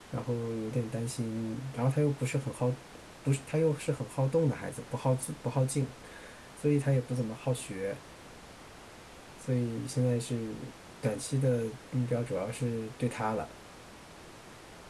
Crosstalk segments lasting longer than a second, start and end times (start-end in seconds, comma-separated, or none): none